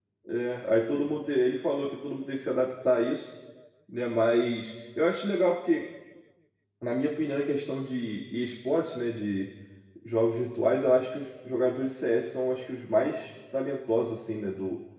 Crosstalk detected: No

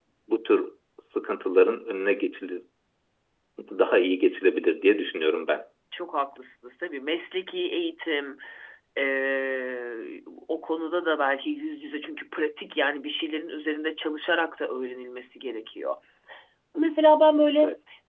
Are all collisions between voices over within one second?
Yes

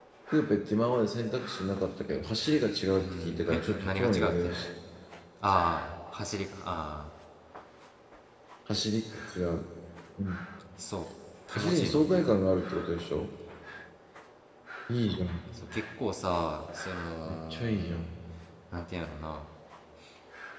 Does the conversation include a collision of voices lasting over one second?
Yes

